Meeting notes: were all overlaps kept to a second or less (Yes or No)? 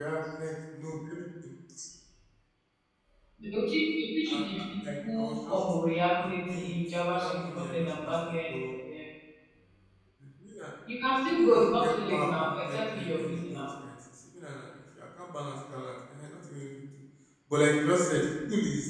No